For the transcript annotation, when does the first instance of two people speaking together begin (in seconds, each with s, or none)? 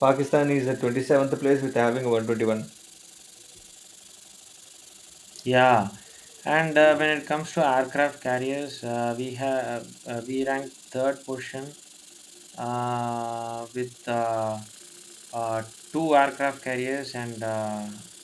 none